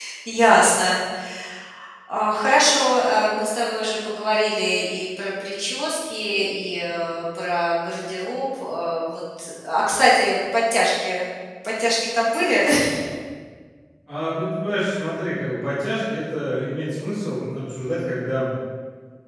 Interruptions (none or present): none